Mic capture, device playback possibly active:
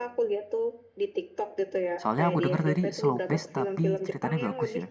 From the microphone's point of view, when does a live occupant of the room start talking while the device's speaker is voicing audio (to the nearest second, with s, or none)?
2 s